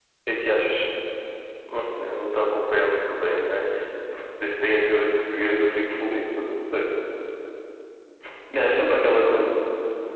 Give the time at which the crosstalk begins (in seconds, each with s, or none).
none